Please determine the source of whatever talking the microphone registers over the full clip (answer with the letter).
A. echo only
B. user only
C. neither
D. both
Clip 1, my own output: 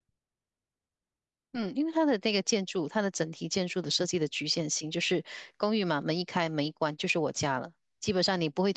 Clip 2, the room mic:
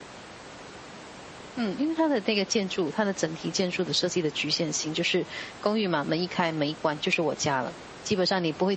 A